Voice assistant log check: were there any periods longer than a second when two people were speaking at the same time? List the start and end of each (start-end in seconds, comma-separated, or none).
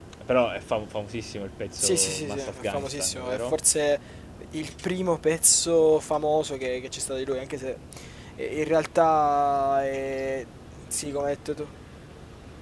1.8-3.6